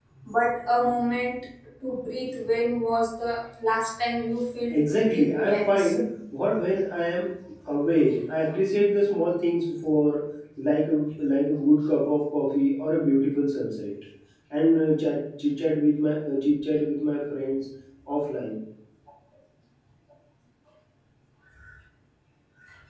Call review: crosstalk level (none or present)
present